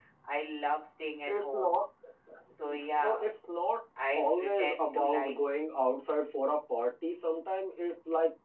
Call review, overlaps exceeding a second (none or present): present